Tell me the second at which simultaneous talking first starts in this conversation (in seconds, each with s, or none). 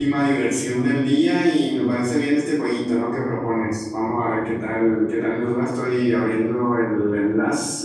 none